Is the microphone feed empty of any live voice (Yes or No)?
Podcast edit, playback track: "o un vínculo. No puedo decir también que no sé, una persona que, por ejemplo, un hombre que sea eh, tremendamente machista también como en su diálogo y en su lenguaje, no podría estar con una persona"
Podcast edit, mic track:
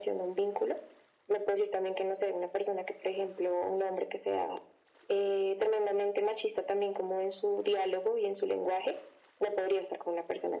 Yes